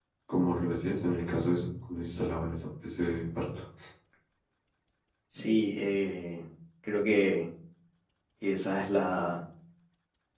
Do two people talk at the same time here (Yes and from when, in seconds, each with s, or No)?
No